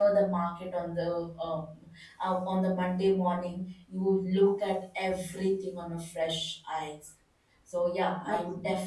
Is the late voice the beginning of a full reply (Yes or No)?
No